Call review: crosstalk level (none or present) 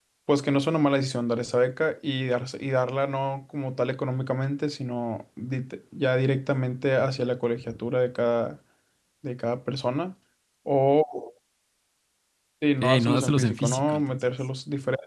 present